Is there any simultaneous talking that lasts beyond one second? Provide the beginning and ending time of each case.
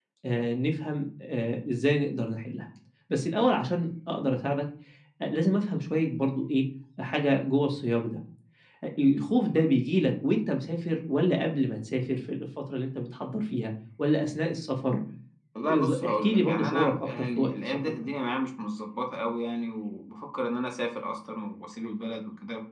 15.7-18.1

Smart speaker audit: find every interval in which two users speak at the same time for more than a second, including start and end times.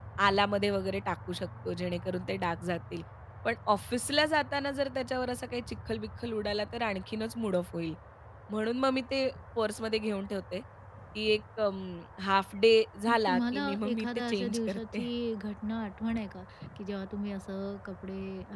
13.1-15.0

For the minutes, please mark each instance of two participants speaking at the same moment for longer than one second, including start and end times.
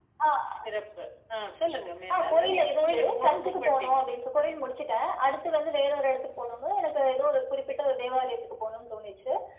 2.2-4.0

